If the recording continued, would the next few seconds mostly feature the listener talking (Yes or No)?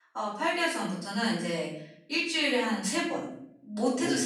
No